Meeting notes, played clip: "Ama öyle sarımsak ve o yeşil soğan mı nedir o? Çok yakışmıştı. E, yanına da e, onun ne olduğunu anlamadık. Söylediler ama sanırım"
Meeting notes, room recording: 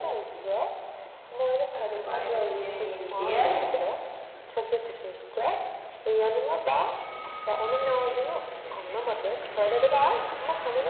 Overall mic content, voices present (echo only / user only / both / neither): both